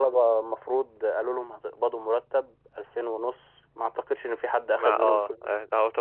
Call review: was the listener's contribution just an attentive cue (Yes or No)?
No